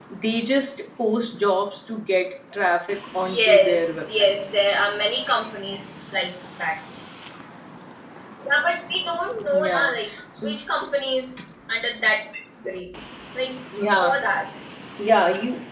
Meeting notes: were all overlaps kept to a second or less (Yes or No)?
No